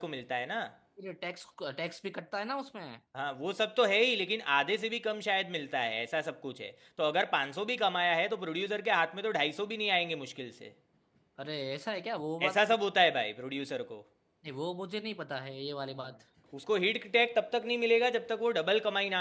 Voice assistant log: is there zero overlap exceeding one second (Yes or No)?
Yes